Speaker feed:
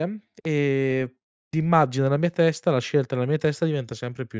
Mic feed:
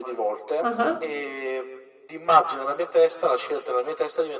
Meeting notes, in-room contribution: present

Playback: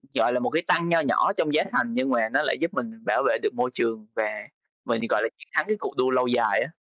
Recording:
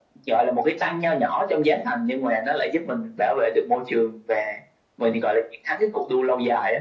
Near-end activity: none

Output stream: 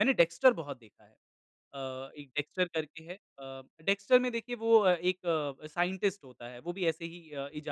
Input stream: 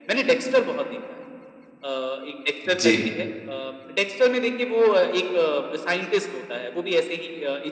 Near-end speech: present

